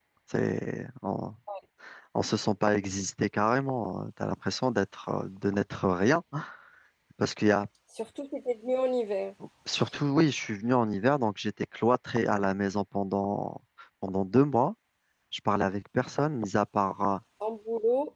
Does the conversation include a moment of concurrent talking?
No

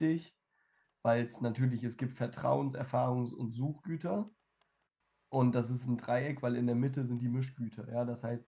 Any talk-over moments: No

